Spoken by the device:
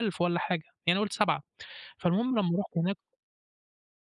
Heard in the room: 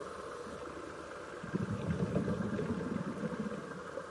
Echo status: none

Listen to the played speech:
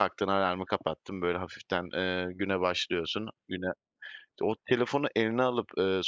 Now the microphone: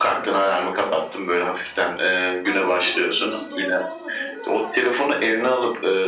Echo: present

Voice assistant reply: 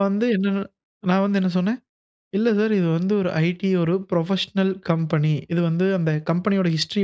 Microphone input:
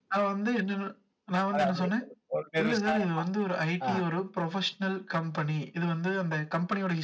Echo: present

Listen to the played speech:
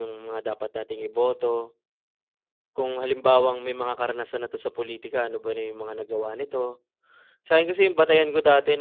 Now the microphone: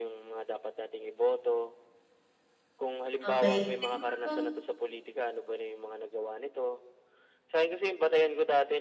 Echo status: present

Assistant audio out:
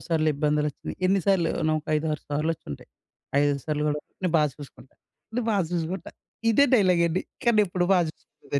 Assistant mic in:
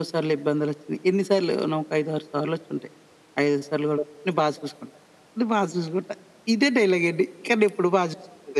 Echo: present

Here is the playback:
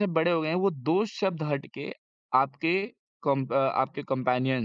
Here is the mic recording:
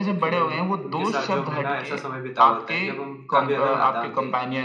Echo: present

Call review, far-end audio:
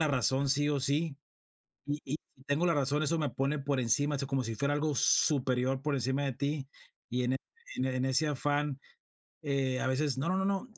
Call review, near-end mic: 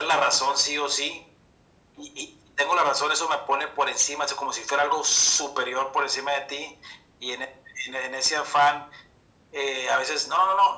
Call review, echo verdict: present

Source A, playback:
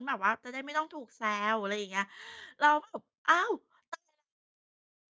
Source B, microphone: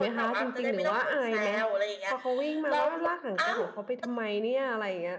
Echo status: present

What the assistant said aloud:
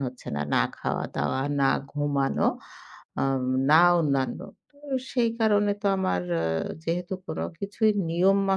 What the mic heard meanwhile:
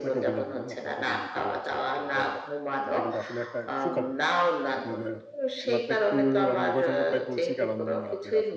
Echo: present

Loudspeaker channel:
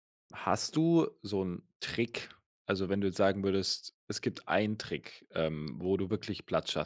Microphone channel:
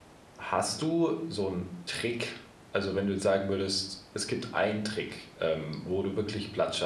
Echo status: present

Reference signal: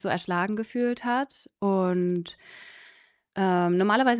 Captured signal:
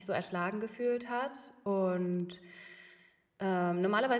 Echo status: present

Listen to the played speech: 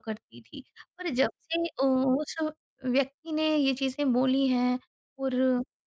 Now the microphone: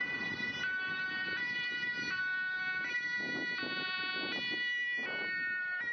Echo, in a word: none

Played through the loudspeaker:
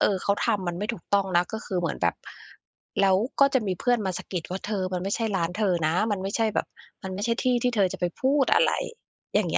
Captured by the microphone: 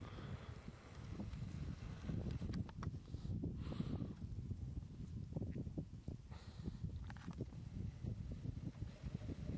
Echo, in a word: none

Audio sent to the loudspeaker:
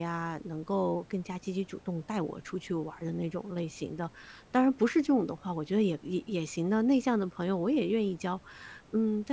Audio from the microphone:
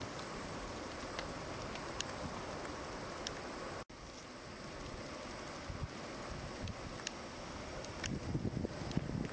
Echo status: none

